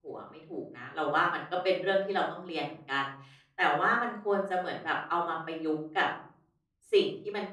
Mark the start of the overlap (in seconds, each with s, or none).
none